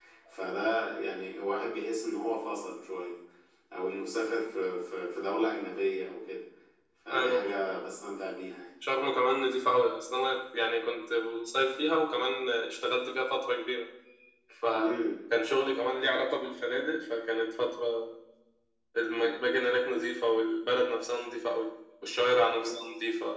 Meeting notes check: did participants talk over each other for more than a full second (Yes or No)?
No